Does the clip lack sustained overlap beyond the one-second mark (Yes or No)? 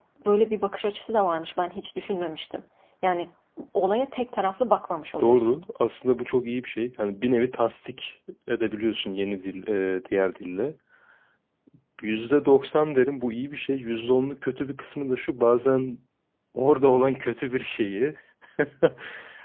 Yes